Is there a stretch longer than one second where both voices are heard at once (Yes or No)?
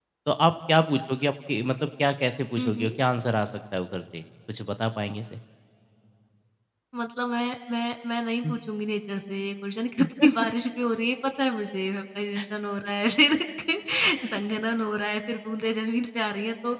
No